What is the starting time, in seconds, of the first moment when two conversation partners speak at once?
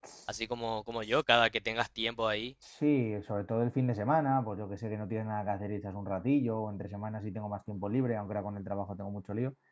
none

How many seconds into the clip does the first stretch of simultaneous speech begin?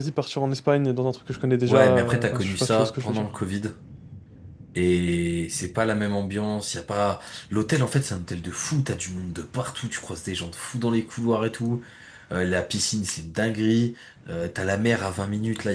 1.7 s

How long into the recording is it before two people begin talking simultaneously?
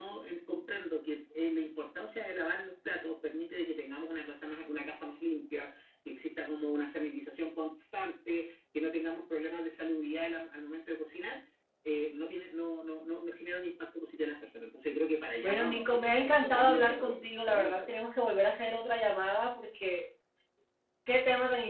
15.4 s

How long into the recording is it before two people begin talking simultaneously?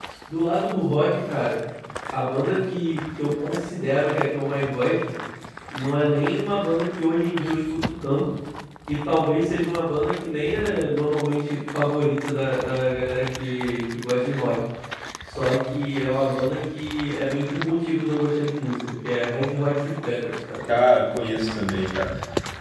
none

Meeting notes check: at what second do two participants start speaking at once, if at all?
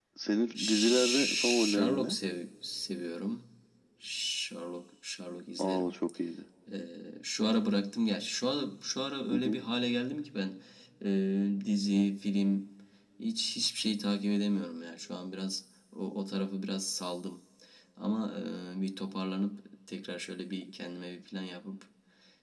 0.6 s

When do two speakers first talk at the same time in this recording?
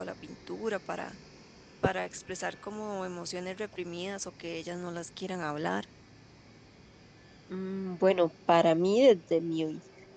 none

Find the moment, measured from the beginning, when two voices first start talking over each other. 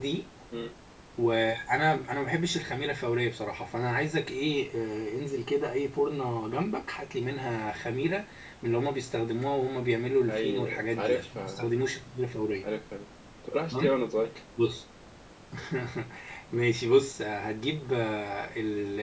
10.3 s

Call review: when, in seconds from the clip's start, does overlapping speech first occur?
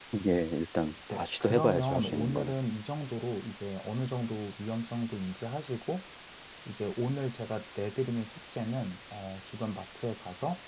1.1 s

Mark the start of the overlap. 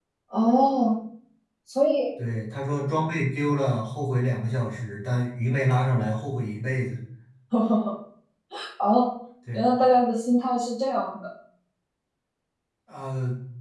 none

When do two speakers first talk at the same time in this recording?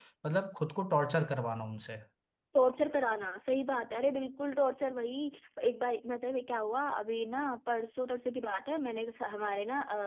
none

